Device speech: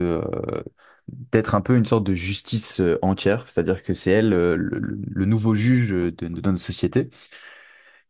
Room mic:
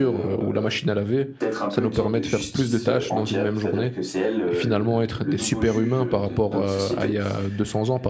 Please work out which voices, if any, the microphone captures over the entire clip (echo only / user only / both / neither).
both